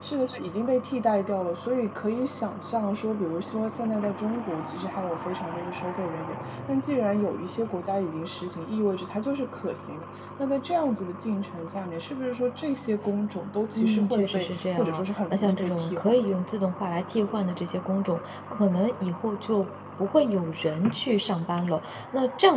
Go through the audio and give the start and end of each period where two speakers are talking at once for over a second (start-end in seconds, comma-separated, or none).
13.8-16.4